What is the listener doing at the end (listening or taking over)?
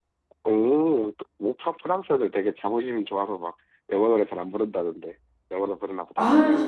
taking over